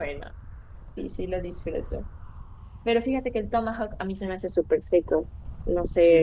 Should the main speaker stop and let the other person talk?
Yes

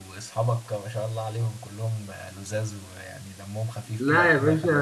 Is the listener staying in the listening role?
No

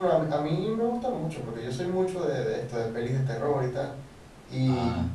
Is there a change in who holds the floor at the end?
No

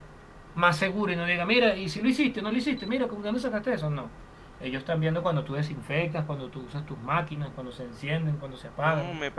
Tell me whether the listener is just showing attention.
No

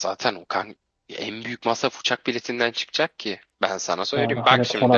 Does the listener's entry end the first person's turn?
Yes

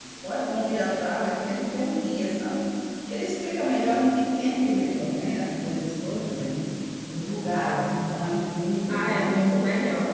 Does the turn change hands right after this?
Yes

